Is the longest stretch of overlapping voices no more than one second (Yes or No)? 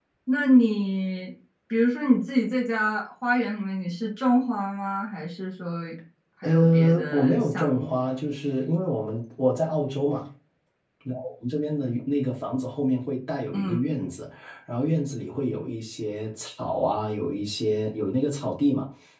No